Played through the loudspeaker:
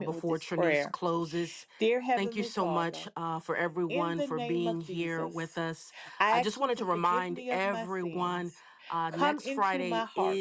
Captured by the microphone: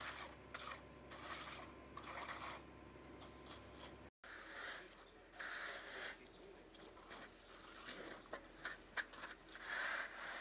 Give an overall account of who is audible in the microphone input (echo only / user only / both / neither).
neither